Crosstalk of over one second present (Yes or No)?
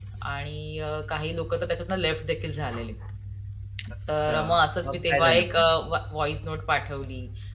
Yes